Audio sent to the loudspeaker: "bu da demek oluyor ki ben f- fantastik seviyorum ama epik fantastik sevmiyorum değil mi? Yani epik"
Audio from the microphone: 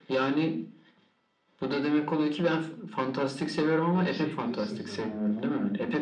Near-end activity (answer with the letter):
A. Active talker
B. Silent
A